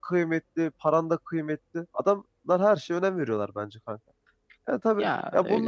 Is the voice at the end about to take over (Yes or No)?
No